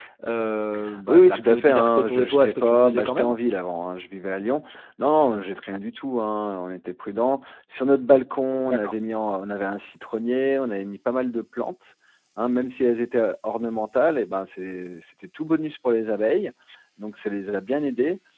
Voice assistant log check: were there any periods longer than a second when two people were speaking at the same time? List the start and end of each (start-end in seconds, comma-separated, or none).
1.1-3.3